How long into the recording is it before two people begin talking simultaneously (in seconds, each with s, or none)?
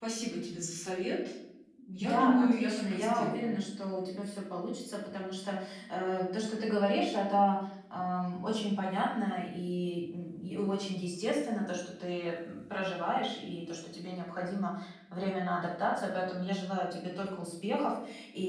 2.0 s